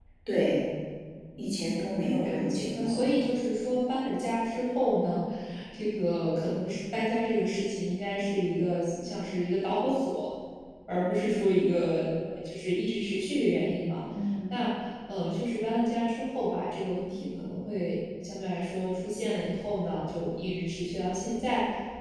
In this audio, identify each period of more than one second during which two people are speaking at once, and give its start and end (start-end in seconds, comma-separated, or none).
1.6-3.1